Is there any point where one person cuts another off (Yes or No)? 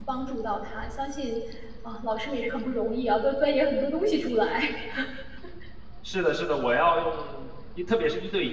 No